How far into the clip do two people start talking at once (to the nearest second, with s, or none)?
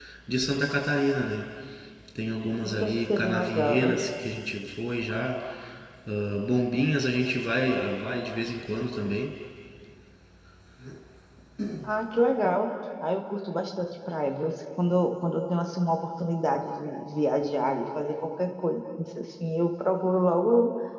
3 s